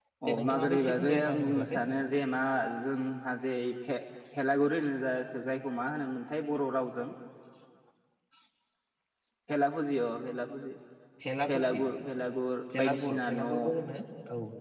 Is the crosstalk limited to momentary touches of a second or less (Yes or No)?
No